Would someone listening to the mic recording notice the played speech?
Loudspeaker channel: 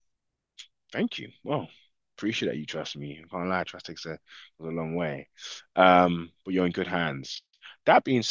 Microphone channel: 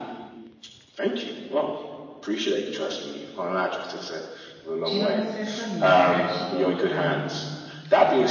Yes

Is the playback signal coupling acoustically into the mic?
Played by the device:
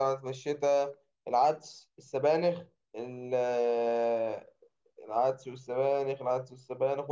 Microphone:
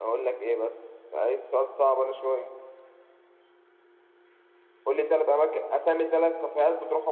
No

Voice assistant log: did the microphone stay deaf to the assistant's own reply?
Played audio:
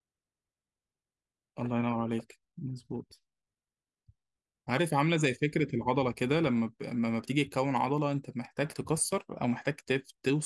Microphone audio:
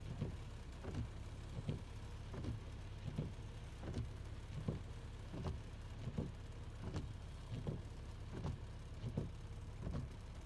Yes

